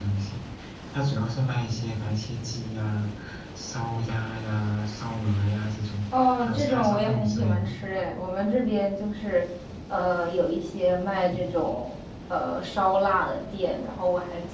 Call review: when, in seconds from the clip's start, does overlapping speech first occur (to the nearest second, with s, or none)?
6 s